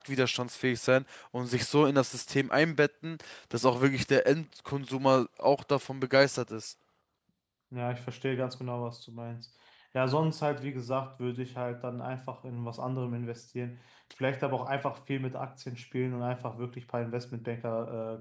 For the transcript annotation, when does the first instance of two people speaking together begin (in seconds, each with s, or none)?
none